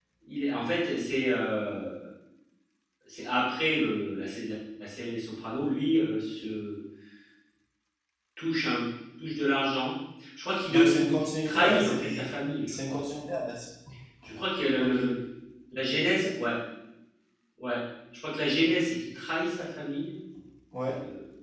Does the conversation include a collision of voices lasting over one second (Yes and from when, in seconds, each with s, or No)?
Yes, from 10.7 s